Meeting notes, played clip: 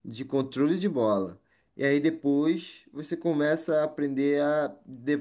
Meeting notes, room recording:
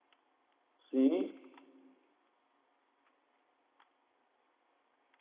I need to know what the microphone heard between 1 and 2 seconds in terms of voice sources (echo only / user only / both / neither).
user only